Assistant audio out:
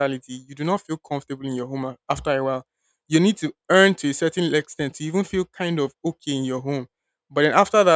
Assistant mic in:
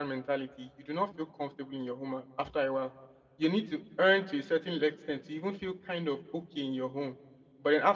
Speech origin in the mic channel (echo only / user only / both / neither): echo only